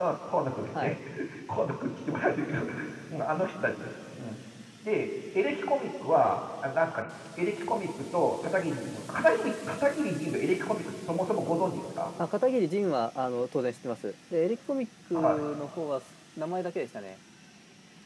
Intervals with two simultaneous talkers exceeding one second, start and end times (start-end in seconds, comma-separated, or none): none